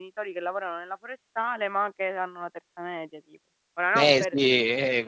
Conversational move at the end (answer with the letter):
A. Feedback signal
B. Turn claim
B